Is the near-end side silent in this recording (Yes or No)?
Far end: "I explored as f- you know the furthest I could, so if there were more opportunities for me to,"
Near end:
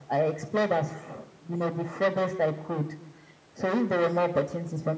Yes